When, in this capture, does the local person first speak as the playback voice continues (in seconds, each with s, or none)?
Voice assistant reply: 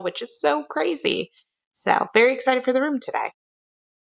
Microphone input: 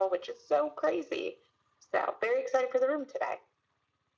none